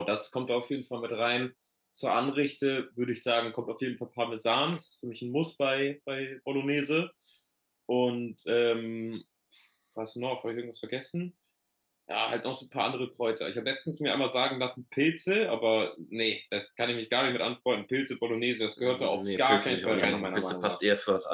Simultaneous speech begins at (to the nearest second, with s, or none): 19 s